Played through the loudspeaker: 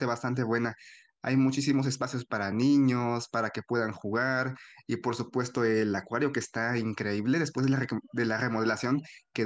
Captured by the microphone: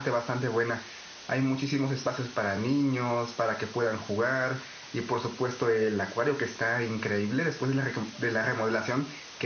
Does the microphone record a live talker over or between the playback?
No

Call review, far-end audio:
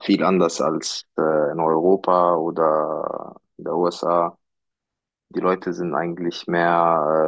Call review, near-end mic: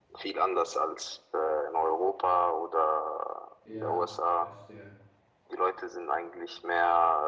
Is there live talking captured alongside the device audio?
Yes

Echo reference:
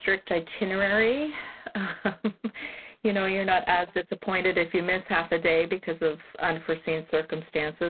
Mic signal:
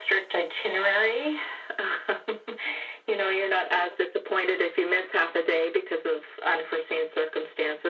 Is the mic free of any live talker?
Yes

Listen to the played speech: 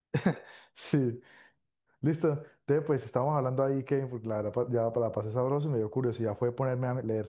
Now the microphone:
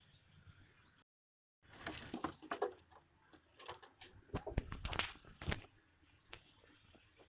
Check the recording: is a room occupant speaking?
No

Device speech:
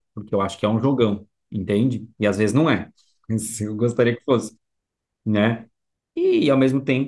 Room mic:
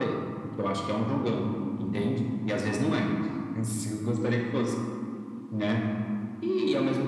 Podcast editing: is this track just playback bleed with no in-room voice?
Yes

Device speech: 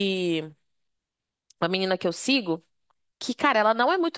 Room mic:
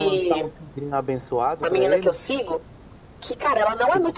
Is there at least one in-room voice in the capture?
Yes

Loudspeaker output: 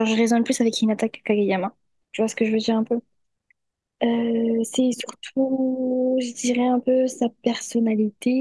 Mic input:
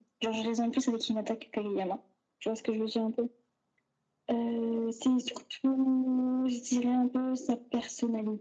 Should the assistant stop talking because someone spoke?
No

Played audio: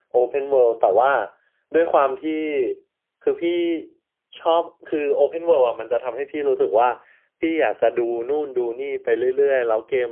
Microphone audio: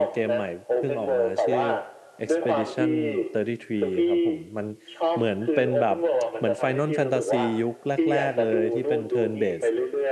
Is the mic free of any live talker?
No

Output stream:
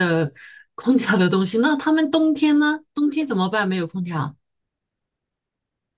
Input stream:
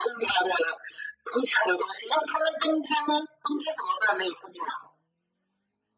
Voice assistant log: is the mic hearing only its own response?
Yes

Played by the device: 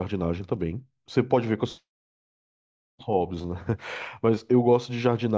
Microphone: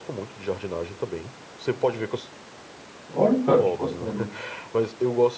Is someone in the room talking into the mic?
Yes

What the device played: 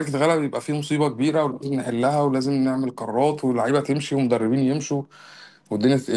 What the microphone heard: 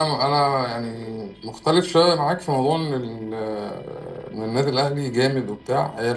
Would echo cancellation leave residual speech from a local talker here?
Yes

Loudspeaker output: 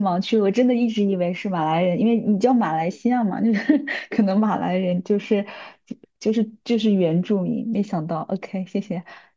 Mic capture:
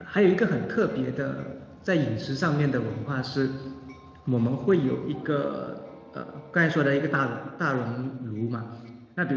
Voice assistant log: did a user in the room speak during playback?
Yes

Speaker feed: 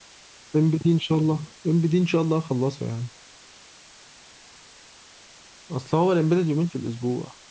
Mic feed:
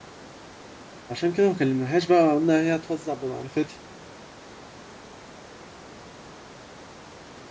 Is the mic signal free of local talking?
No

